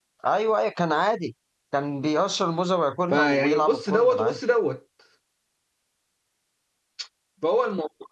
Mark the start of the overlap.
3 s

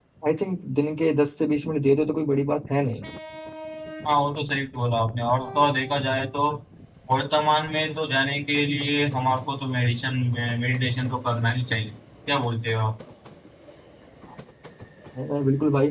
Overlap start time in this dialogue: none

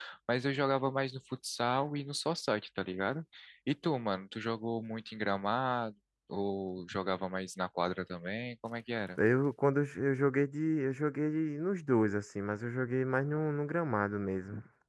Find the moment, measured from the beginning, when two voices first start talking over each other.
none

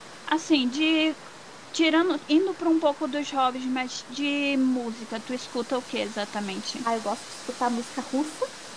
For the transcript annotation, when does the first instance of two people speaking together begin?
none

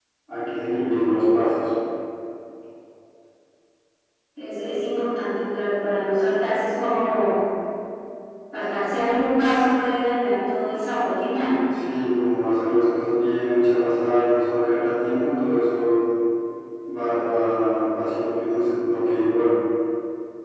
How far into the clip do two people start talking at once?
none

